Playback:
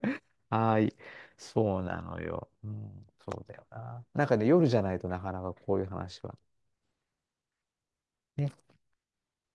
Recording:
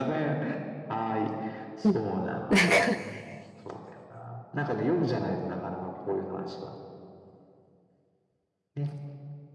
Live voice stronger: Yes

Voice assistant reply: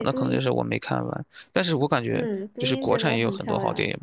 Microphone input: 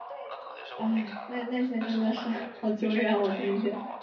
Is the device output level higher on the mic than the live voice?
No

